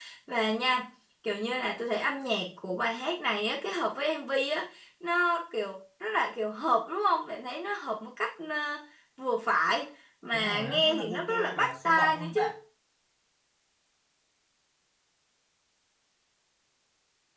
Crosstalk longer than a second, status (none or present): present